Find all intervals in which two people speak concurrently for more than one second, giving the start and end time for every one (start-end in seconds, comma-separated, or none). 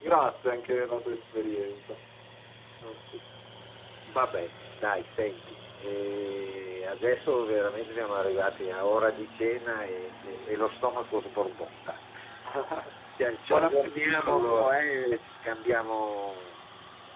13.5-14.7